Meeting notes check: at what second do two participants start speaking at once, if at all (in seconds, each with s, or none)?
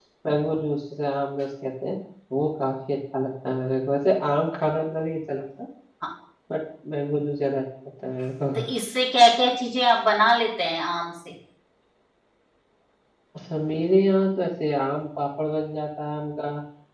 none